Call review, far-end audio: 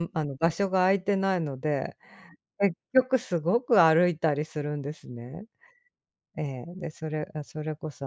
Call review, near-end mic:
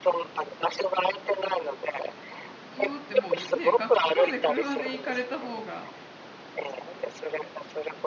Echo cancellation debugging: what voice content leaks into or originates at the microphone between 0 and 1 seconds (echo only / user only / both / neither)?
echo only